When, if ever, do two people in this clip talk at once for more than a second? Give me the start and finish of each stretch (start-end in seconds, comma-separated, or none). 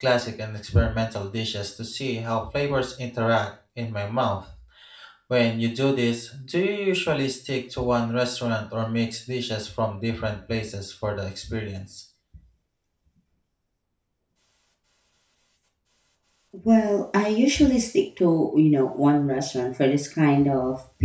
none